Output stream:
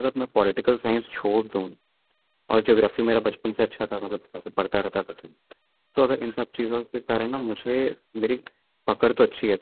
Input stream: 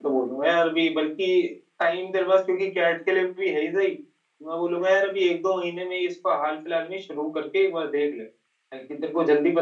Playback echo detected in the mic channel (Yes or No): No